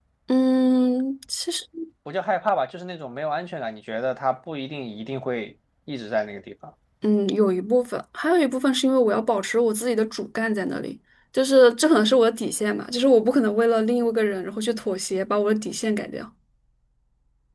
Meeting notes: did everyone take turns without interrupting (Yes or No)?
Yes